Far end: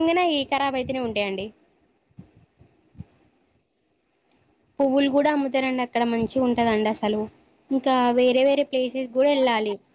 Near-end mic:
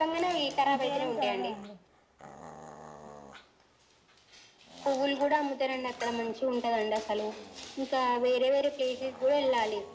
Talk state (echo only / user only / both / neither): both